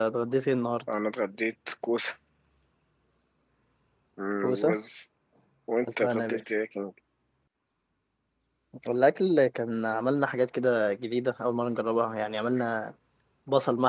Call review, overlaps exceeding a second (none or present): none